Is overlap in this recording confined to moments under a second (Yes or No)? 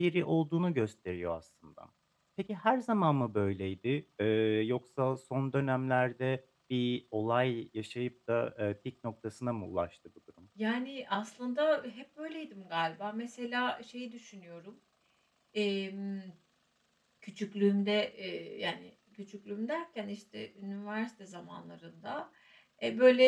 Yes